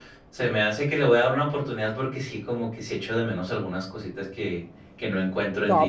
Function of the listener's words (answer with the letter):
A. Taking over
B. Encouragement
A